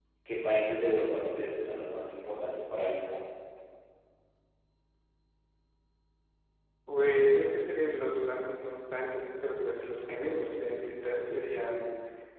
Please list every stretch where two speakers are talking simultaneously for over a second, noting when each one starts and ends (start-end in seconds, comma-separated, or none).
none